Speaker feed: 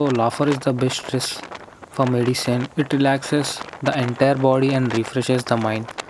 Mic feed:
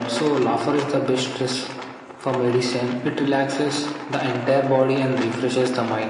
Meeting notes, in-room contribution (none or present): none